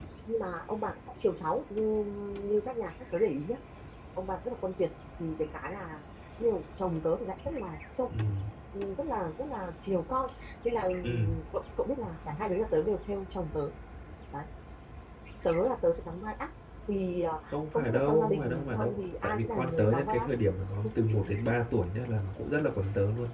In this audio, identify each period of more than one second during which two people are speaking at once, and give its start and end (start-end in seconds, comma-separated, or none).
17.5-20.3